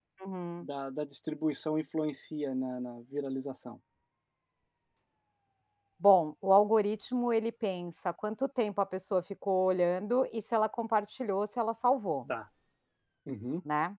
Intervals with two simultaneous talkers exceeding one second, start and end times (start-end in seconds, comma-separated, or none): none